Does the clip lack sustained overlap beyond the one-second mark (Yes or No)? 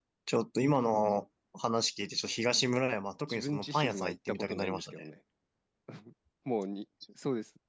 No